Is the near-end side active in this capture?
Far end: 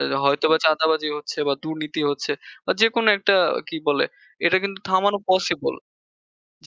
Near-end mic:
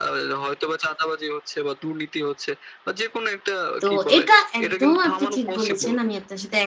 Yes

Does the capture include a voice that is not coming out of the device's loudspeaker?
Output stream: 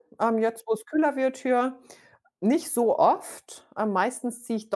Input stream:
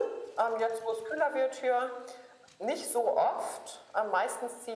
No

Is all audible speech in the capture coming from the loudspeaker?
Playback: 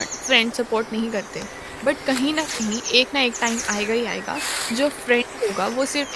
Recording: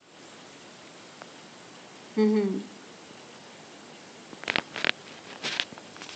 No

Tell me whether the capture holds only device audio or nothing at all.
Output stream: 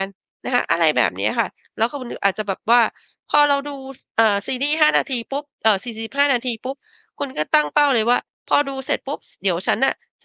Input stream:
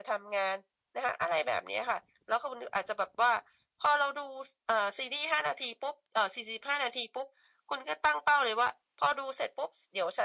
Yes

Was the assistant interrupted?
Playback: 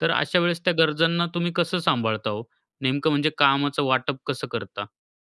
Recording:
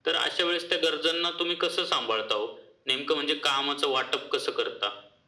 No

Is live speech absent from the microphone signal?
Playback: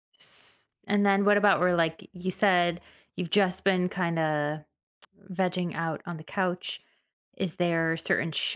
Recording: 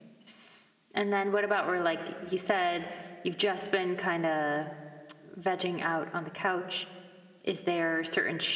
Yes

